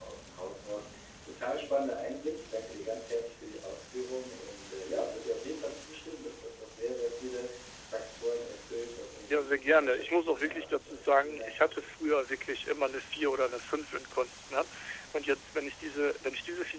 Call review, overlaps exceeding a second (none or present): present